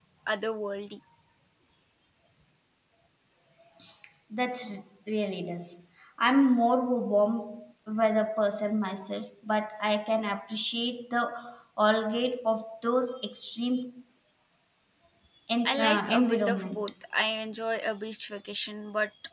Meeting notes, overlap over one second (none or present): present